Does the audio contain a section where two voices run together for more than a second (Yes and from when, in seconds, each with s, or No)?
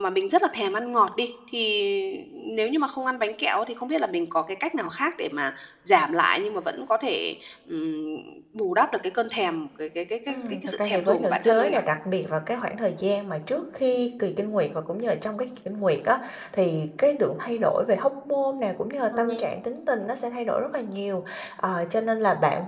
Yes, from 10.3 s